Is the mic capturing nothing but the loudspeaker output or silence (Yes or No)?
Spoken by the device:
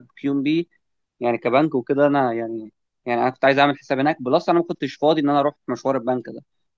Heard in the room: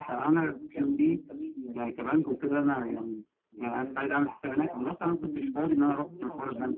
No